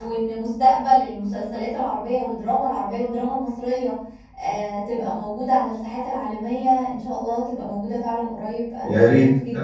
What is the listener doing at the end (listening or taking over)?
taking over